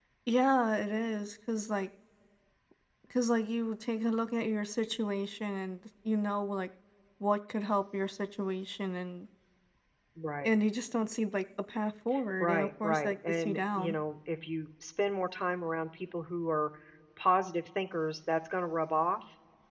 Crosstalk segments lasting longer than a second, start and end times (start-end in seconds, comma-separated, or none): 12.4-14.0